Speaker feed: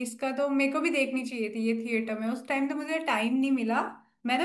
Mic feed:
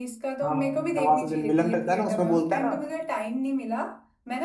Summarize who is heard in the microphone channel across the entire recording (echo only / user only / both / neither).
both